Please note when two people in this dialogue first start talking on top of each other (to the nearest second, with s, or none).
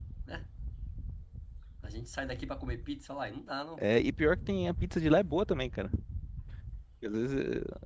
none